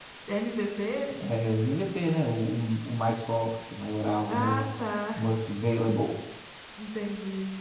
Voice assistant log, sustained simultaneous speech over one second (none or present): none